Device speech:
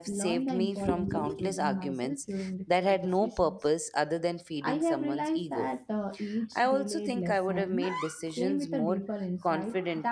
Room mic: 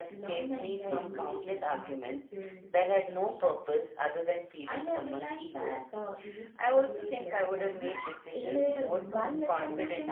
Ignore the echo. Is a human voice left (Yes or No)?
Yes